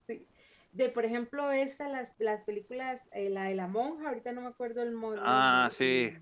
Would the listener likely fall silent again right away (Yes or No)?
No